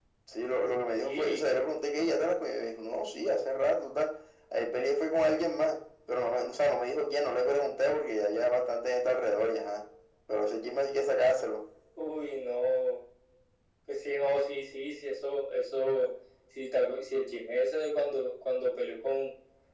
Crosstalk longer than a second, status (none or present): none